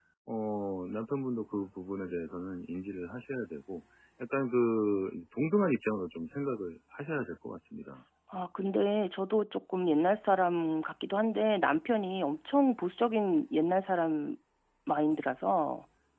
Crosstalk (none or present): none